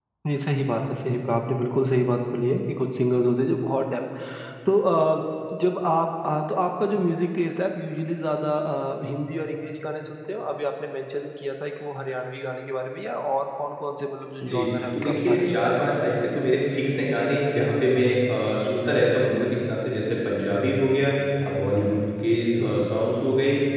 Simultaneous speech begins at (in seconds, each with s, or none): 14.4 s